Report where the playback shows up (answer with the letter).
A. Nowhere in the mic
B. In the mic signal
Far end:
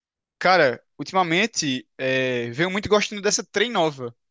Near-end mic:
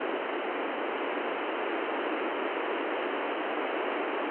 A